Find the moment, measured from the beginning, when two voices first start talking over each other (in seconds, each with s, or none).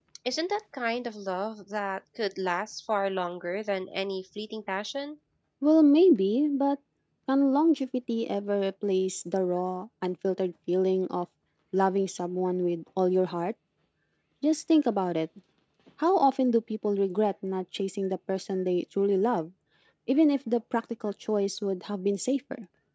none